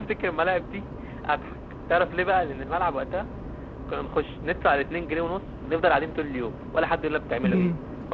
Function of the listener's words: taking over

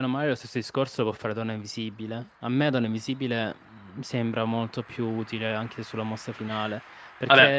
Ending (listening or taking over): listening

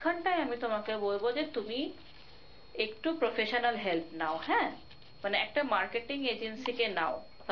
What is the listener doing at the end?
listening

